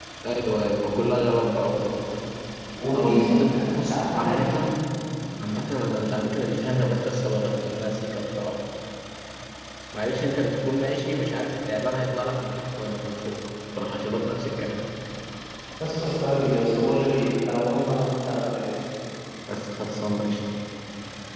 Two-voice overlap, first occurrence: 2.9 s

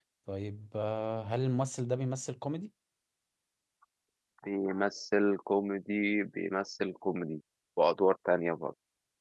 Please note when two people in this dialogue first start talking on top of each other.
none

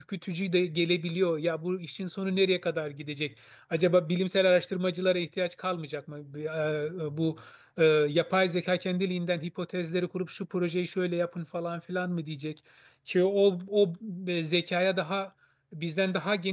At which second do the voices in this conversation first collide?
none

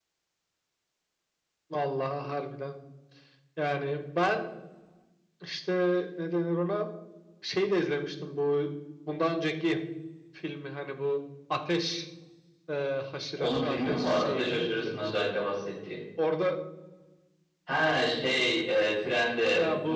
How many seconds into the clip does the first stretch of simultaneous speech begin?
13.4 s

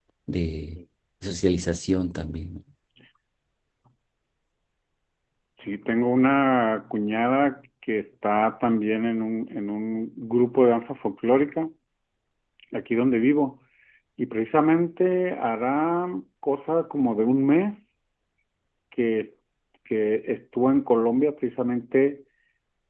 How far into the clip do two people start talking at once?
none

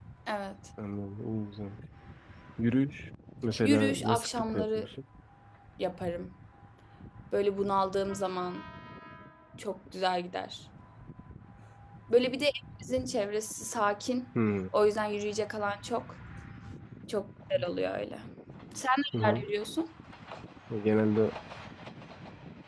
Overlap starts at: 3.6 s

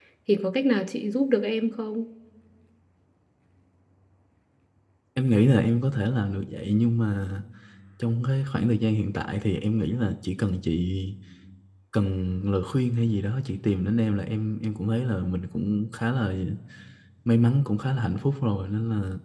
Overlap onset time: none

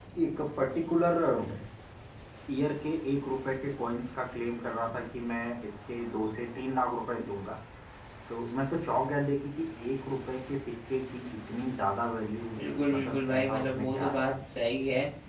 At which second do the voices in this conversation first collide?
12.9 s

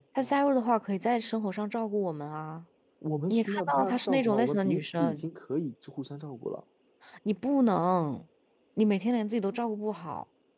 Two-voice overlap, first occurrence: 3.3 s

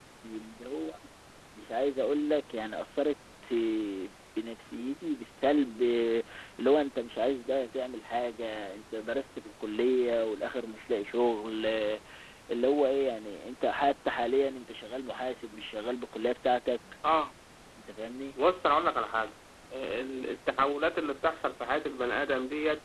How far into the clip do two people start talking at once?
none

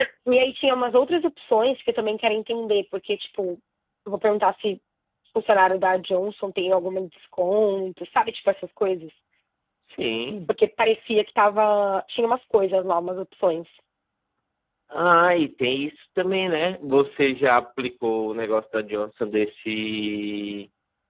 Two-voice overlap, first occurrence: none

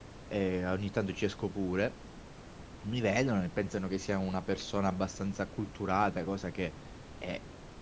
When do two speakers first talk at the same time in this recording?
none

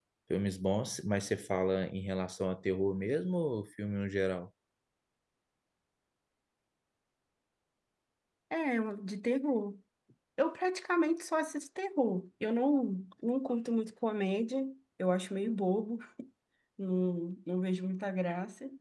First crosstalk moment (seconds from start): none

